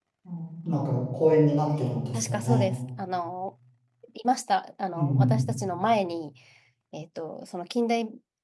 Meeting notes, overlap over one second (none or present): none